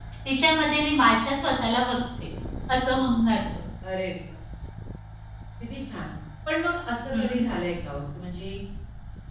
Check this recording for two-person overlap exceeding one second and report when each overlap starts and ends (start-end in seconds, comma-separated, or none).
none